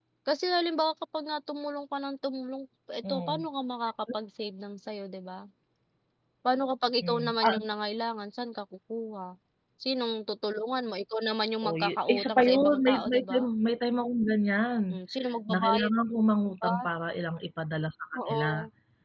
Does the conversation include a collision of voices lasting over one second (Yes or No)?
Yes